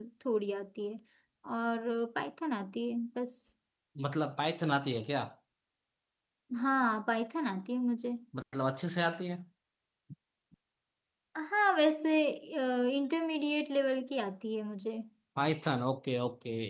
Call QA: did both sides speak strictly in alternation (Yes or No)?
Yes